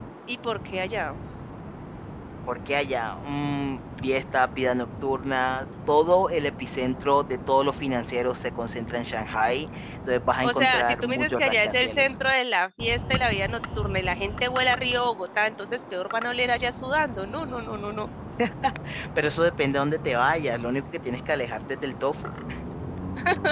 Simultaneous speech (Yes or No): Yes